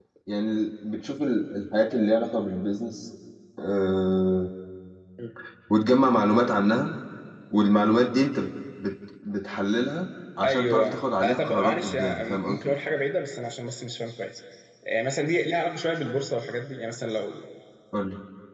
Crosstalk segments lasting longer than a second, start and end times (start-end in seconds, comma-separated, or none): 10.4-12.7